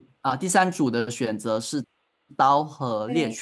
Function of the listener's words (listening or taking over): listening